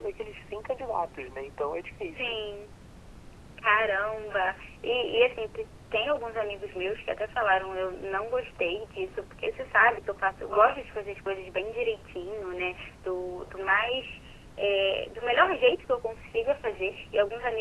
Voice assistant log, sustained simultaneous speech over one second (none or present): none